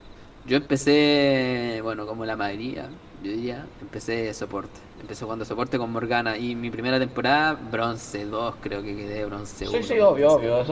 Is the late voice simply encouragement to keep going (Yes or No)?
No